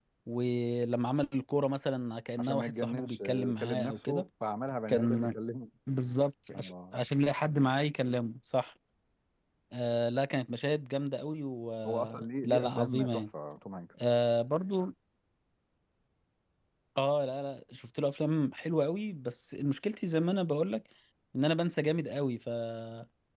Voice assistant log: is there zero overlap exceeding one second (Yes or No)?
No